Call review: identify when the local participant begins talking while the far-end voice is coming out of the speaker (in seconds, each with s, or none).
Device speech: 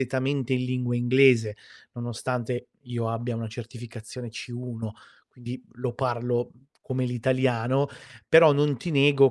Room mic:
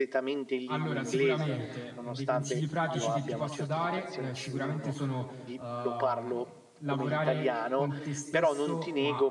0.7 s